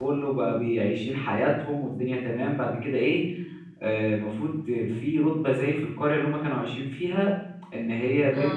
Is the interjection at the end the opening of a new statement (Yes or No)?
No